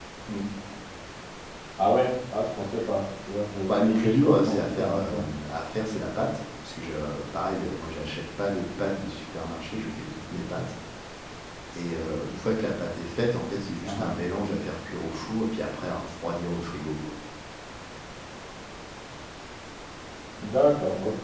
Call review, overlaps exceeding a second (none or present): present